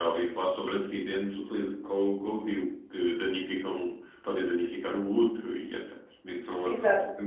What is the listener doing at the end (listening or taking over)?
taking over